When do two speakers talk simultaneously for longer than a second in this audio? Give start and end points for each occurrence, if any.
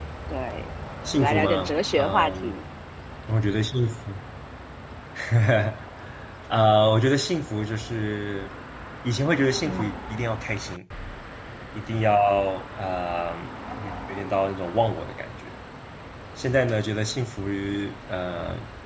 1.1-2.6

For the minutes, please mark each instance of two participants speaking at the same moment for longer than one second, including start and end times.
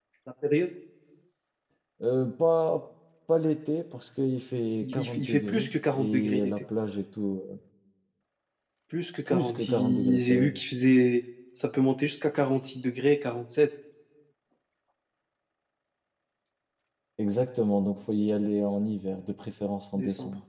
4.8-6.5, 9.2-10.5

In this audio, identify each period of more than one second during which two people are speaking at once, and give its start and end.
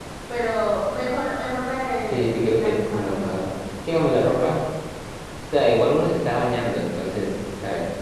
2.1-3.4

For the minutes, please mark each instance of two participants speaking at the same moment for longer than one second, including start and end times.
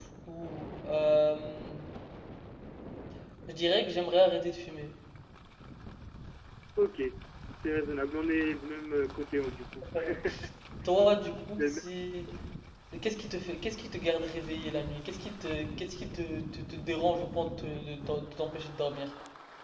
none

